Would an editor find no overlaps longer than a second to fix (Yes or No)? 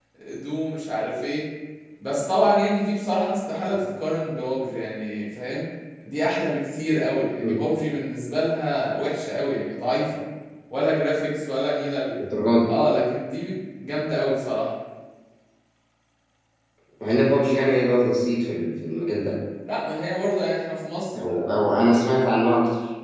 Yes